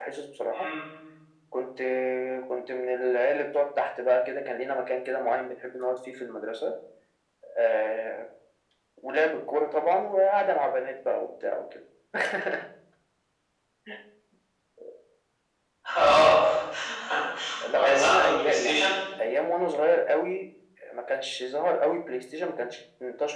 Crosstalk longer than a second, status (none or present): present